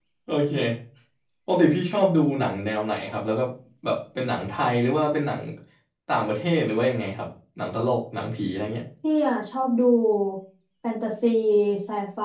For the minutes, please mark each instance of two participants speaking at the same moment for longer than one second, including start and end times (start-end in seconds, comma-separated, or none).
none